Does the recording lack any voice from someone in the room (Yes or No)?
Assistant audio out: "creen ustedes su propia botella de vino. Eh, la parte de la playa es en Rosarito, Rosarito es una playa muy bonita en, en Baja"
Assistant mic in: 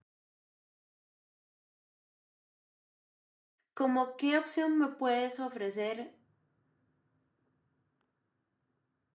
No